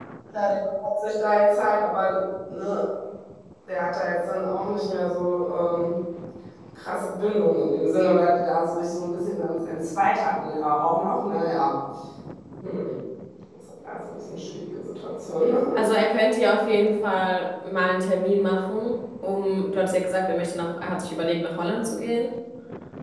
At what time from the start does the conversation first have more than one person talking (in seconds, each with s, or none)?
none